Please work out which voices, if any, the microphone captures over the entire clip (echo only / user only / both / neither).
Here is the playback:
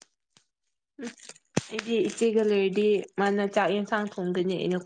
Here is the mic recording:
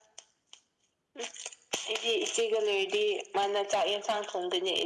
echo only